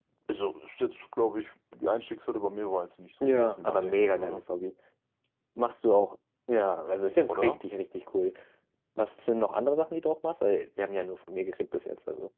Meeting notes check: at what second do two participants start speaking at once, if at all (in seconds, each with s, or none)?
3.2 s